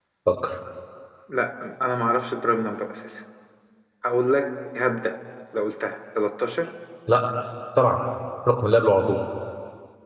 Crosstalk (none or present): none